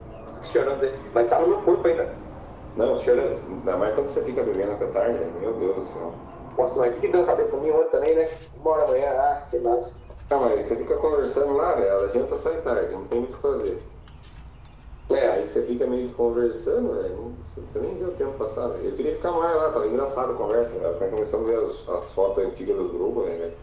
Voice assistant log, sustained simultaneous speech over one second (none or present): none